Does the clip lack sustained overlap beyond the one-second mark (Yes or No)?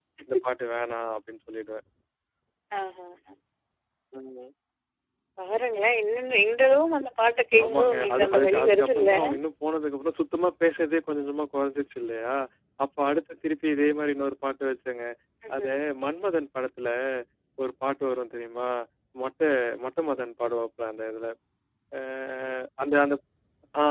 No